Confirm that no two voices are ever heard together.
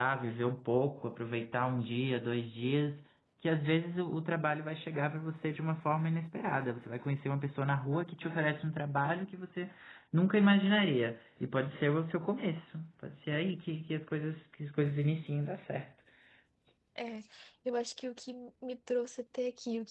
Yes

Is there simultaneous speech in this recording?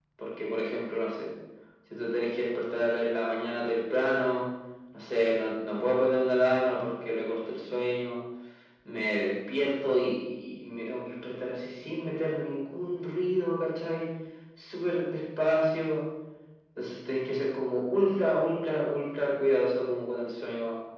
No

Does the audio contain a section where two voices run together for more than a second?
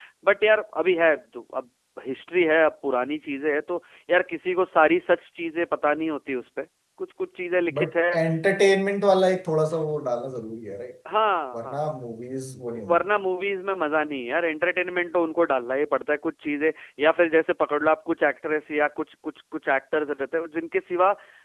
No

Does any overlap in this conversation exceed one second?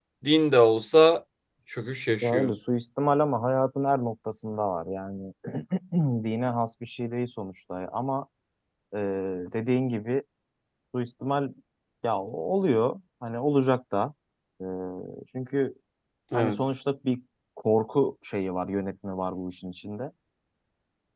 No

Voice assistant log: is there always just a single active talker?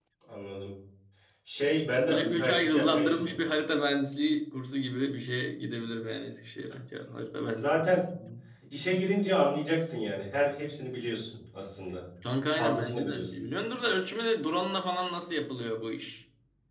No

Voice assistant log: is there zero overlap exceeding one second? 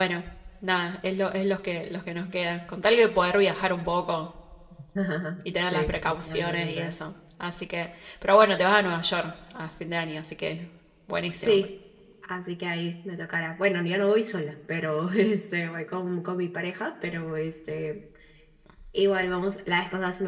No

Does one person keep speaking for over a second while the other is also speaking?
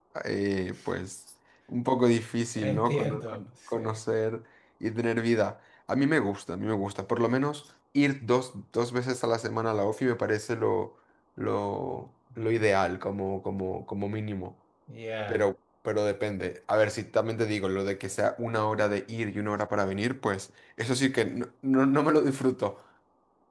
Yes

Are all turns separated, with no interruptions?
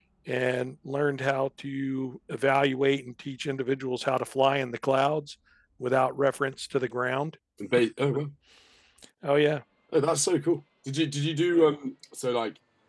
Yes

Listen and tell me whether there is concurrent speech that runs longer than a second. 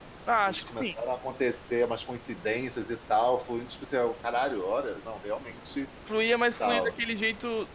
No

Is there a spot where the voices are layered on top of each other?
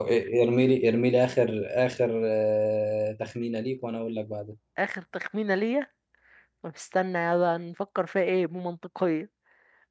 No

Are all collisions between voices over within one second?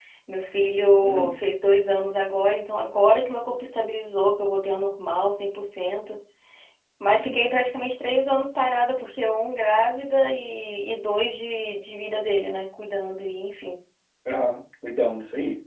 Yes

